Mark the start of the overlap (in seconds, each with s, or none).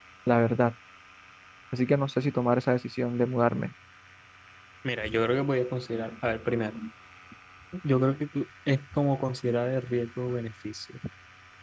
none